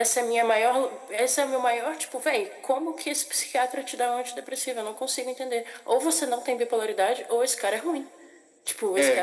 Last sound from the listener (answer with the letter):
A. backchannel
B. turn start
B